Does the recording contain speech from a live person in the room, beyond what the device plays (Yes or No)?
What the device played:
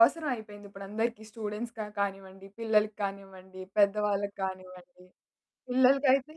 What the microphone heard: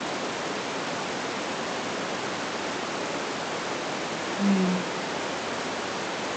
Yes